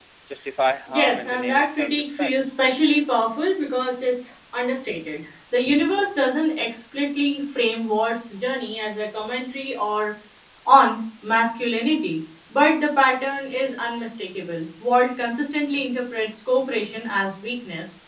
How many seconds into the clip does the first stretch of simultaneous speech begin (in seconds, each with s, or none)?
0.9 s